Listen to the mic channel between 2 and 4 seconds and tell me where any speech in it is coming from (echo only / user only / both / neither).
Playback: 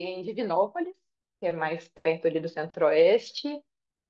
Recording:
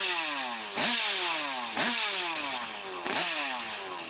neither